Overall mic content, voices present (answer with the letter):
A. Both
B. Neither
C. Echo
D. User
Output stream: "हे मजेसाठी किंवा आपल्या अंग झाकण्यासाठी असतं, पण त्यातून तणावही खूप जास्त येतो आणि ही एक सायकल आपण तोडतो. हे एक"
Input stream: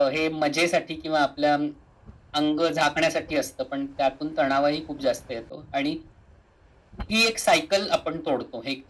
C